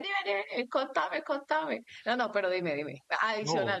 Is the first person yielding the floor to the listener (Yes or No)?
No